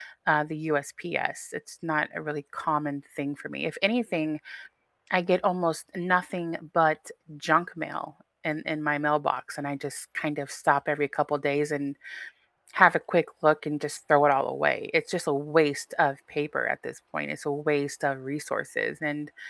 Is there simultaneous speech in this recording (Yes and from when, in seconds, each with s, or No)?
No